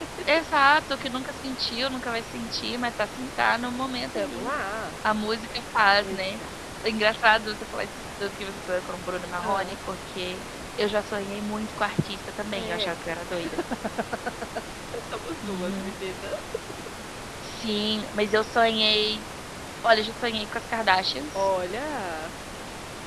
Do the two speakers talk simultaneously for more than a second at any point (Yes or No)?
No